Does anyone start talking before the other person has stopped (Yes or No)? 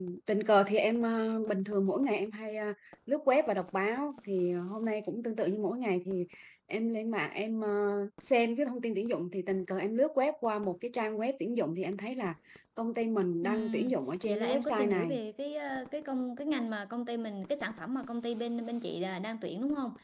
Yes